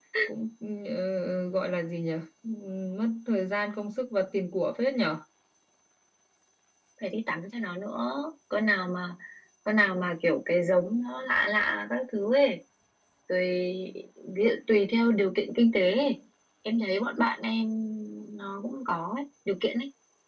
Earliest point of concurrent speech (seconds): none

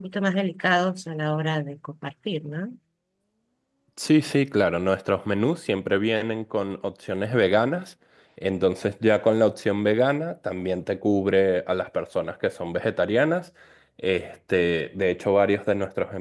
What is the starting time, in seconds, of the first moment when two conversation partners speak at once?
none

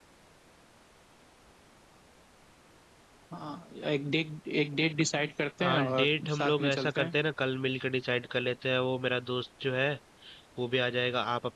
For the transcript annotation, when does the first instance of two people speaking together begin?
5.6 s

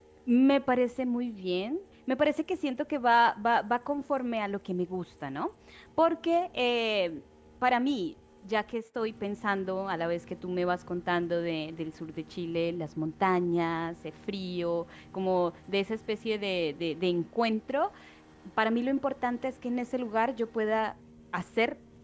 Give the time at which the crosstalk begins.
none

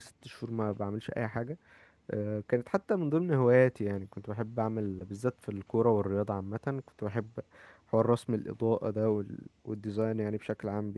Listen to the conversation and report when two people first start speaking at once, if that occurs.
none

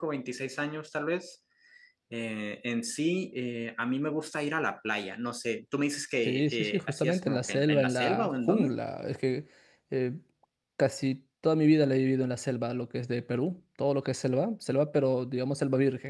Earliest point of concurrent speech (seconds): 6.2 s

